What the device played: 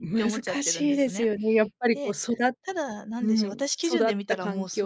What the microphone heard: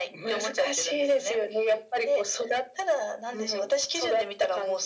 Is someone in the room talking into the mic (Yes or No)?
No